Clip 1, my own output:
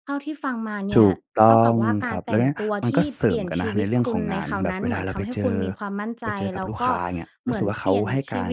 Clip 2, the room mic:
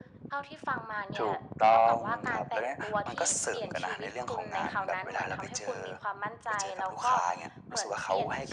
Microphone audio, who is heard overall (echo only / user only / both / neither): echo only